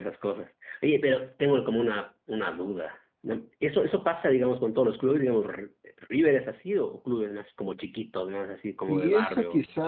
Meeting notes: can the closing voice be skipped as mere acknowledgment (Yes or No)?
No